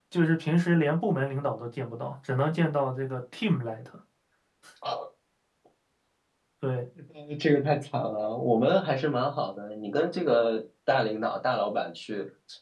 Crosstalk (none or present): none